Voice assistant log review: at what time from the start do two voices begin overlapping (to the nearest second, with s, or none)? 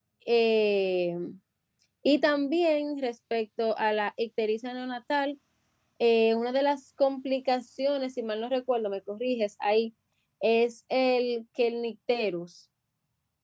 none